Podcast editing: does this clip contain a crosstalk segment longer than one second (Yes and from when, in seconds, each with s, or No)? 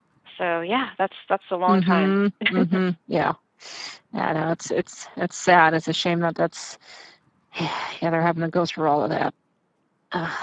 No